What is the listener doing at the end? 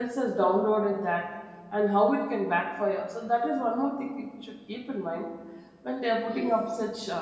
listening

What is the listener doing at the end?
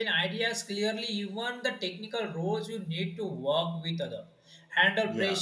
listening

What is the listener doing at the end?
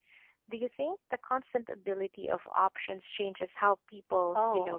taking over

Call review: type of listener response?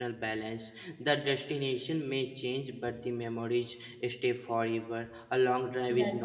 listening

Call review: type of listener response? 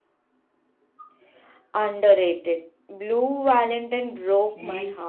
taking over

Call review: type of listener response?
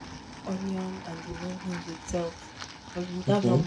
listening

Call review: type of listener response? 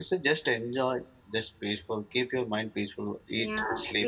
taking over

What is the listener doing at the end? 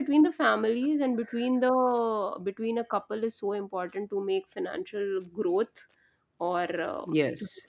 listening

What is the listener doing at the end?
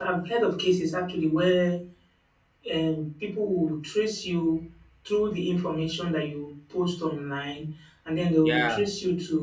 listening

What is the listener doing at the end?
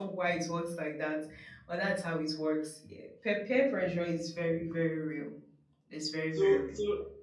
taking over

